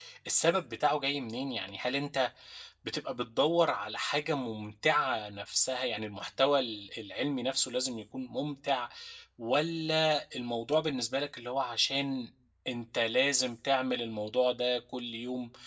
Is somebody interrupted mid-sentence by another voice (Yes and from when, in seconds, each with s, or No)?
No